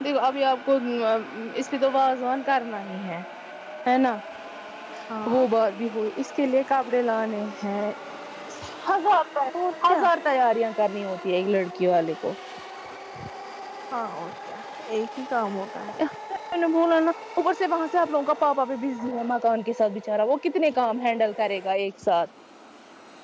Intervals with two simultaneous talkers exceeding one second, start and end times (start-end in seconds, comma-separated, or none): none